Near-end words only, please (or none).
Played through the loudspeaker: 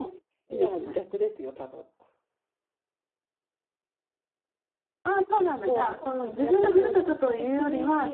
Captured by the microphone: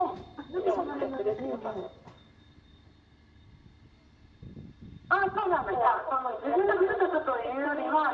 あ、なんかそんな名前。ええええ